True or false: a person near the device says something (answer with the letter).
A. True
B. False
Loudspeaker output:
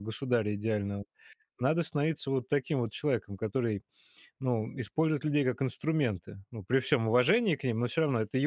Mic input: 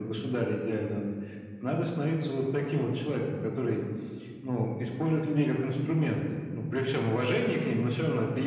B